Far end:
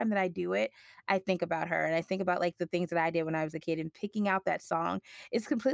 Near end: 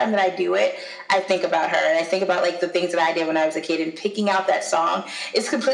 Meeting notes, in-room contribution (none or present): none